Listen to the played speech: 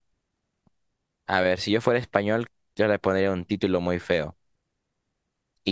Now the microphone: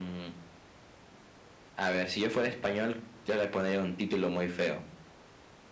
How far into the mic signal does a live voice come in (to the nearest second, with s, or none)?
none